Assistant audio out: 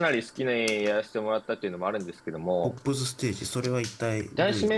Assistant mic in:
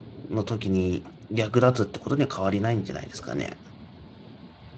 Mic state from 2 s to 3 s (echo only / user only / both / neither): user only